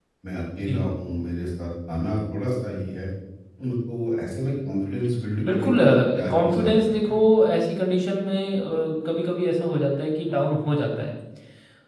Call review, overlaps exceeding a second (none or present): present